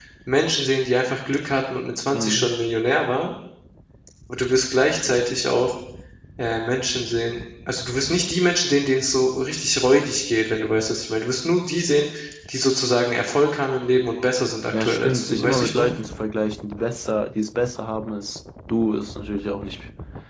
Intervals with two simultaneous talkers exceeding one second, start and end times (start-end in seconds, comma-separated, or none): 14.7-15.9